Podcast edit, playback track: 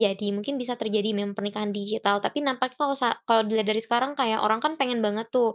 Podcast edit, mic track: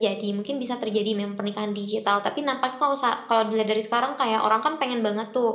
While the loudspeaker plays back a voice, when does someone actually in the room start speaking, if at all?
none

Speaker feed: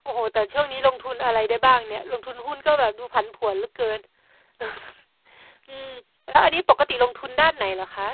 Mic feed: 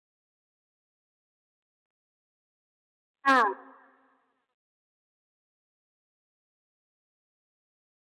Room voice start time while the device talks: 3.2 s

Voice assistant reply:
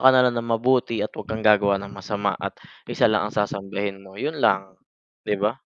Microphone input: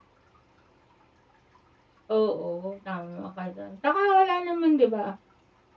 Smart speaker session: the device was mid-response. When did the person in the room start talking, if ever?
2.1 s

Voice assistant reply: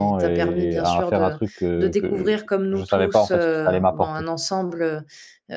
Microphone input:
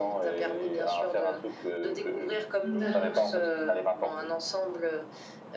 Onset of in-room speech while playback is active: 2.6 s

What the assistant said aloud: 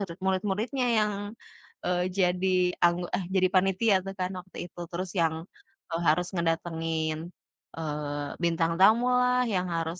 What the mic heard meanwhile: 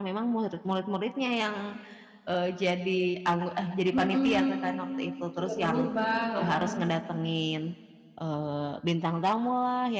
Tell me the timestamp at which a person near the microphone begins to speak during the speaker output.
3.9 s

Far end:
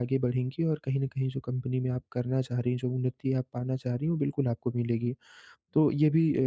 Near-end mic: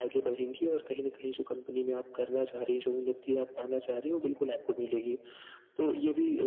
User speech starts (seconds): none

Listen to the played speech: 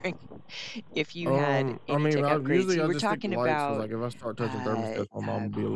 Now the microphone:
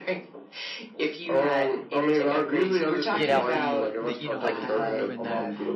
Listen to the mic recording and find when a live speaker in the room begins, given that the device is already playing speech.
3.1 s

